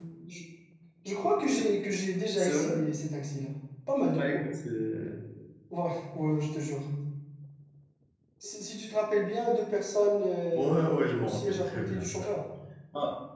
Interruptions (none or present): present